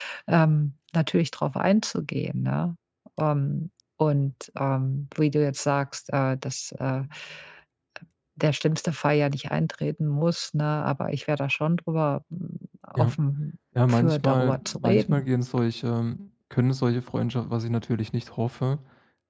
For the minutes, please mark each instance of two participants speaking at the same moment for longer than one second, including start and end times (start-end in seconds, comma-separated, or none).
13.9-15.3